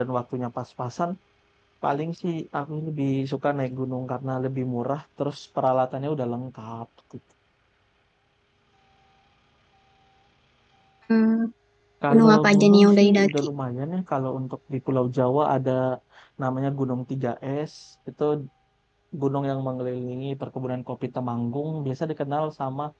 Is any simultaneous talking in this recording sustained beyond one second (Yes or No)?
Yes